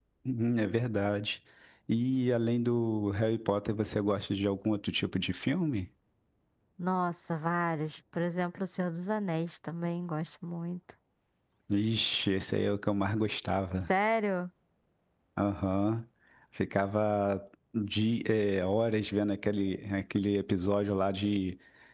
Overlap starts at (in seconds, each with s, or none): none